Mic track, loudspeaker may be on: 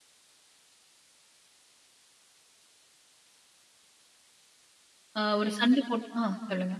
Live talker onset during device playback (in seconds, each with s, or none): 5.2 s